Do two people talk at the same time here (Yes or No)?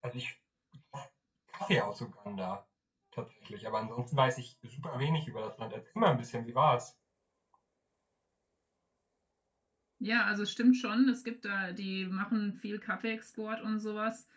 No